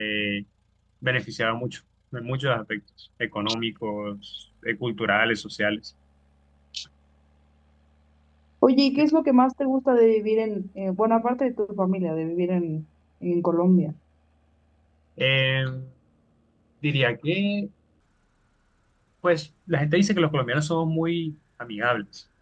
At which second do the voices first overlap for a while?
none

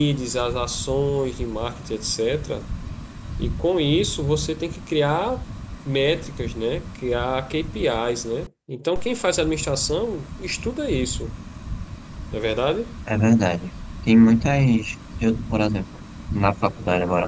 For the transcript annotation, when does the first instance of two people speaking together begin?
none

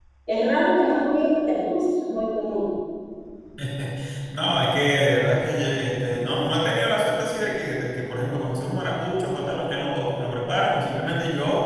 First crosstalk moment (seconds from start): none

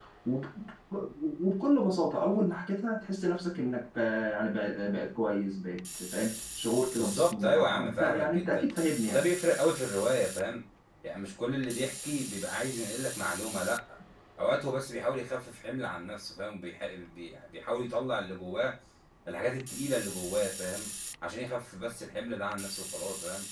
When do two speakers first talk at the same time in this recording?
7.0 s

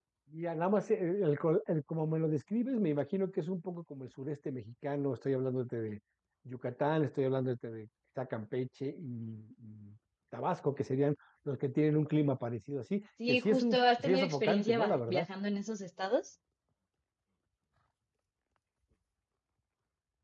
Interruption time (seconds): 13.2 s

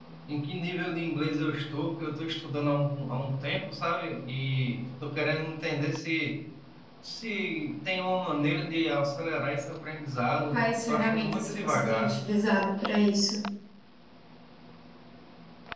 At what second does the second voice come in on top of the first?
10.5 s

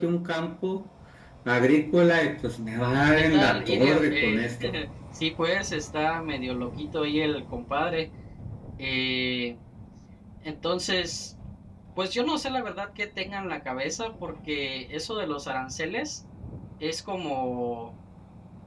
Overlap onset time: 3.2 s

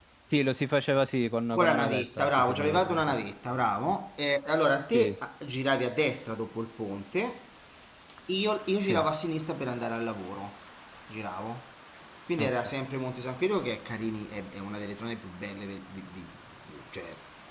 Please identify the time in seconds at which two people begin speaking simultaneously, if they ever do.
1.5 s

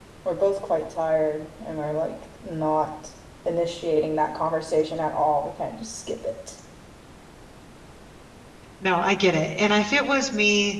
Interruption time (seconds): none

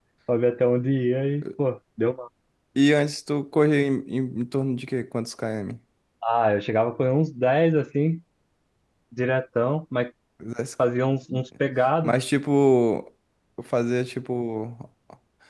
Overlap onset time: none

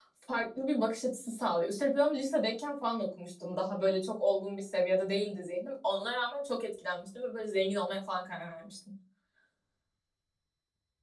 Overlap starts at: none

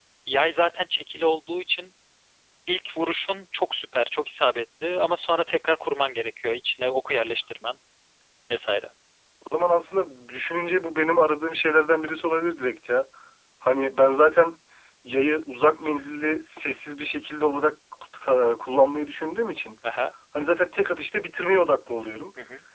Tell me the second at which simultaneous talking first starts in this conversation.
none

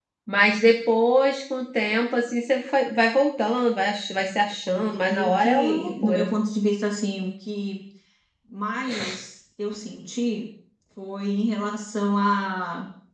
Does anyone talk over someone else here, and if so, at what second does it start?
4.8 s

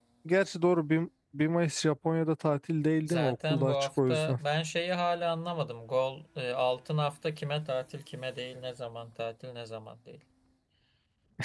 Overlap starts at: 3.0 s

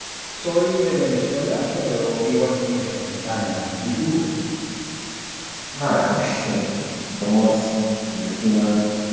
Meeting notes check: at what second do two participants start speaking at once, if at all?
none

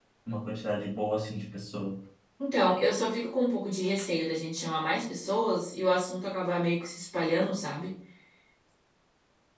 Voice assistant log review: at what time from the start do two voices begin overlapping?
none

